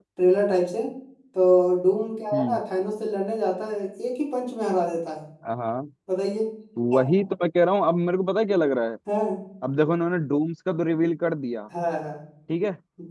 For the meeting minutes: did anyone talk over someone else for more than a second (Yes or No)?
No